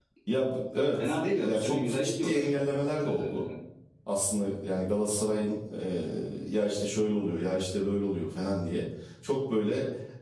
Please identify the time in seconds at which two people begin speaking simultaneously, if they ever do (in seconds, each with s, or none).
1.0 s